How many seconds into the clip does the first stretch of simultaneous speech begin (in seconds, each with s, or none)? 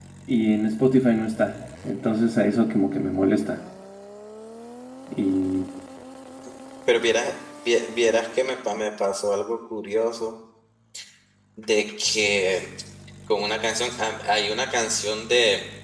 none